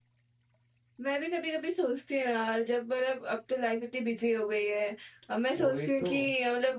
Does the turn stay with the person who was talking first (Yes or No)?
Yes